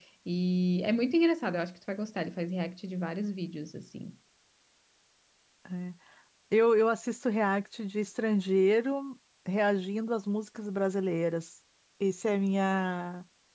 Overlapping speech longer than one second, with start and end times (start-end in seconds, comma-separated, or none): none